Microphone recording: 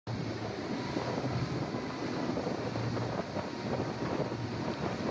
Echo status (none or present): none